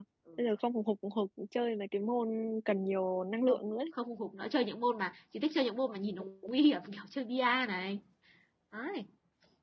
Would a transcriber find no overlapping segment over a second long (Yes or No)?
Yes